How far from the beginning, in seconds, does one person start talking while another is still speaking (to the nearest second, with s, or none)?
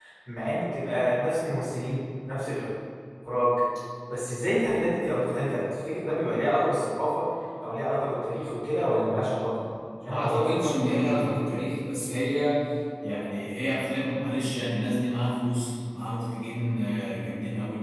10 s